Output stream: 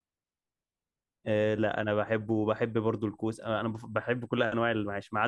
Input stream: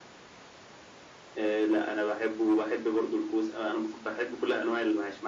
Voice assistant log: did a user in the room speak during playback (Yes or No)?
No